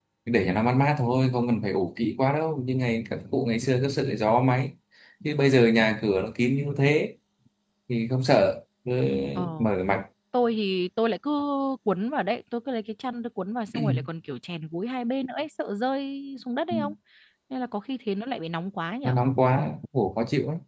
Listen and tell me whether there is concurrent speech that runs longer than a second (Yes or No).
No